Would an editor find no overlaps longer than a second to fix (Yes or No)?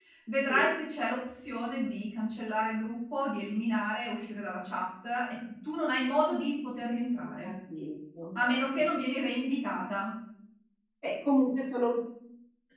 Yes